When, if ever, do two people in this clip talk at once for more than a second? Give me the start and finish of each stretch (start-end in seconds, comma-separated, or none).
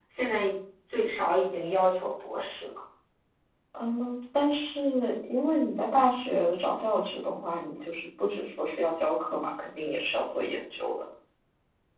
none